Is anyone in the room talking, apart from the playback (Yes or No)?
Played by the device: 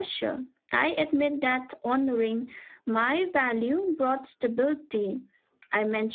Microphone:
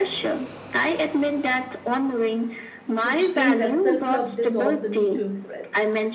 Yes